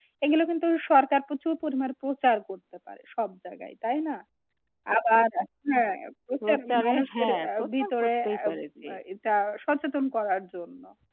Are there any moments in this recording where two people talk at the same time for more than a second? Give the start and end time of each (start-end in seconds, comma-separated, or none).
6.5-8.4